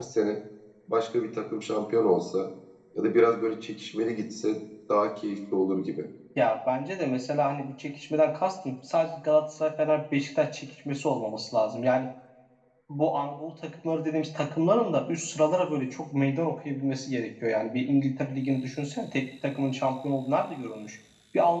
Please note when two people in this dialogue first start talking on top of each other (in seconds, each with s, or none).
none